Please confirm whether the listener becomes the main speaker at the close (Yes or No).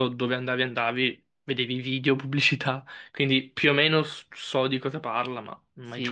Yes